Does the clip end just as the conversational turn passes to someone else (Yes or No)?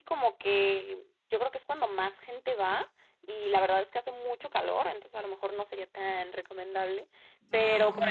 No